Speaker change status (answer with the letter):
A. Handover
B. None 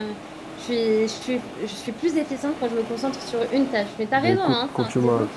A